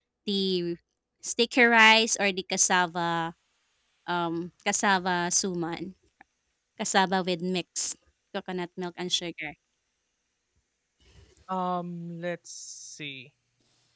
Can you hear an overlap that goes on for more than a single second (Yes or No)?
No